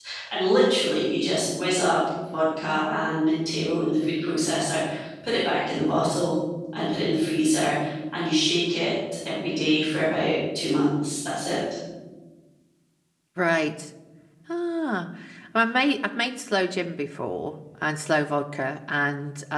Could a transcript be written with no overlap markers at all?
Yes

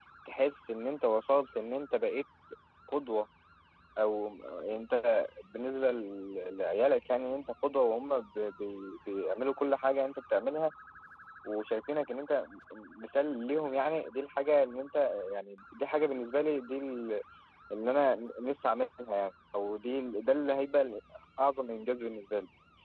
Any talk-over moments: No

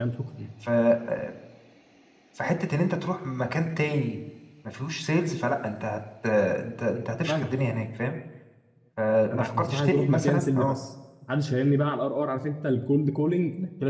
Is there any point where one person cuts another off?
Yes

